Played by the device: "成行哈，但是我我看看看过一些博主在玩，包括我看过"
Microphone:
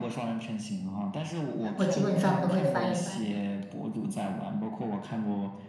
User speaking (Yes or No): Yes